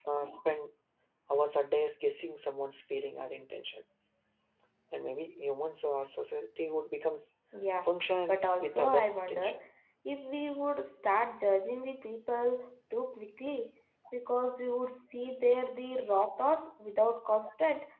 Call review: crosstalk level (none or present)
present